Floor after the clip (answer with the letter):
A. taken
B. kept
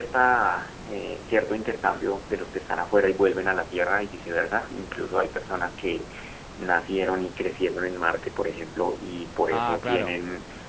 B